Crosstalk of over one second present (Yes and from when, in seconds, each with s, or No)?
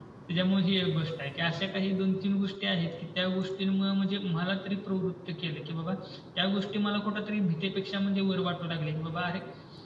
No